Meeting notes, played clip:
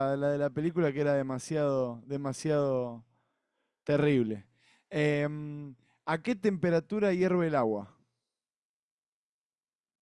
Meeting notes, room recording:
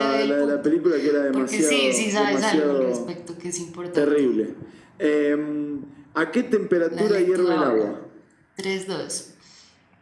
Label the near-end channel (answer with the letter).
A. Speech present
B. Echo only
A